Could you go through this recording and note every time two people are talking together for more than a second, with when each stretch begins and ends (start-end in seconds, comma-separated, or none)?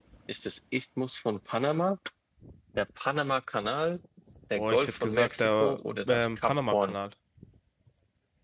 4.5-7.0